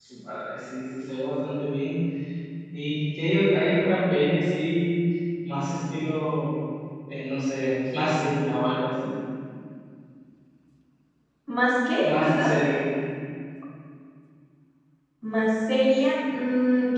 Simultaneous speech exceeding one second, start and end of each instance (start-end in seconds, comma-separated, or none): none